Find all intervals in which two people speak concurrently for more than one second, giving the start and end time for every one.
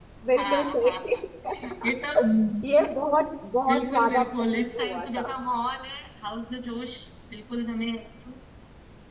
3.7-5.3

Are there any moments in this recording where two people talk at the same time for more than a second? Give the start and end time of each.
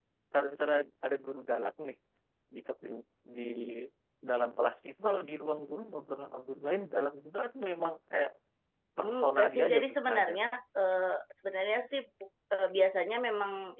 9.0-10.3

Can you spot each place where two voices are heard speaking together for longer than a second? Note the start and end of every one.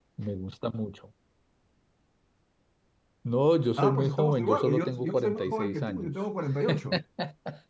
3.8-6.1

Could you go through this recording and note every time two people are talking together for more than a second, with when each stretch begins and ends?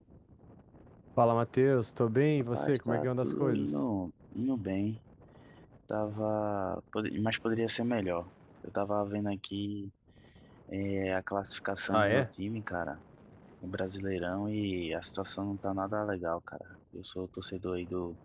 2.4-3.8

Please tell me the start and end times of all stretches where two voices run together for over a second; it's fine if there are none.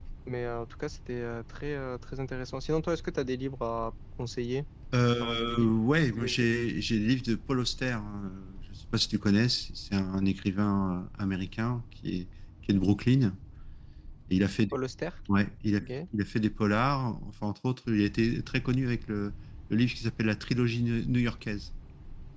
none

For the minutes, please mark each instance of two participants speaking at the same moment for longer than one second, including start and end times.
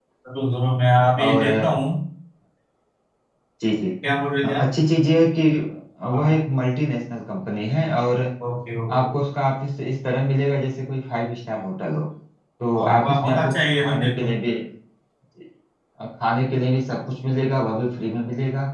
12.8-14.3

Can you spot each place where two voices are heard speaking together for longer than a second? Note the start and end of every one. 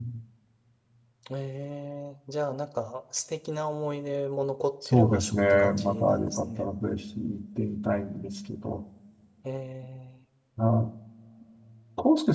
4.8-6.7

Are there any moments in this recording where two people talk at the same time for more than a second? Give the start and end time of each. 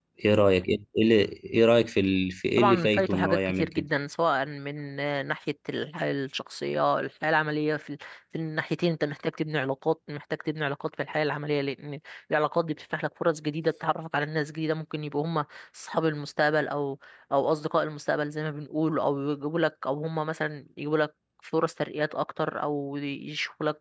2.6-3.9

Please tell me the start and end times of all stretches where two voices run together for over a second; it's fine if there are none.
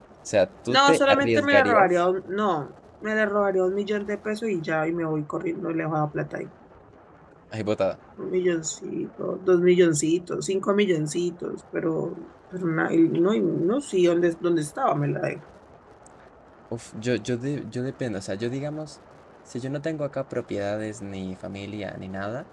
0.7-1.9

